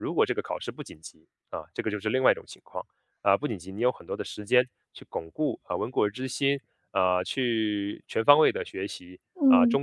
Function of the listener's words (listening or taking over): listening